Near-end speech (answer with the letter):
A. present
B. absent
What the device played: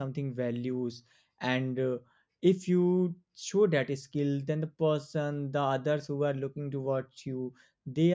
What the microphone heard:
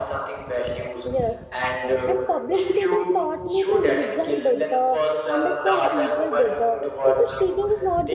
A